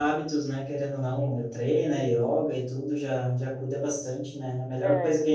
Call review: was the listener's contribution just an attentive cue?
Yes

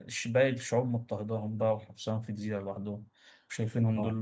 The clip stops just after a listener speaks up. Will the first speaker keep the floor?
Yes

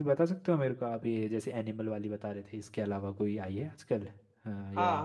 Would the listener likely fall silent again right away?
No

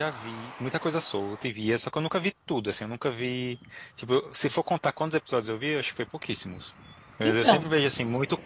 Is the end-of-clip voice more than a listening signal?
No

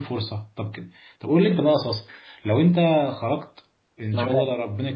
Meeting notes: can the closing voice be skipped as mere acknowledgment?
Yes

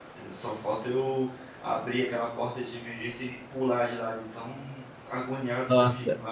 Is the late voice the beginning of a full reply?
Yes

